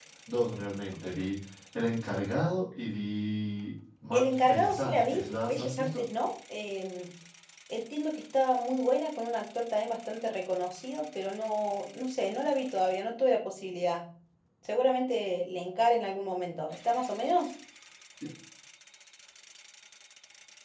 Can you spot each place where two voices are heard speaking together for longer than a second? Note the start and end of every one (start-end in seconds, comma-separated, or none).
4.1-6.0